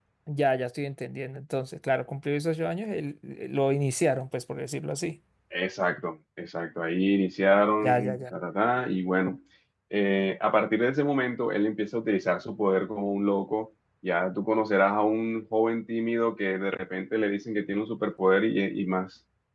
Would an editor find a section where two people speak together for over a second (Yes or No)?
No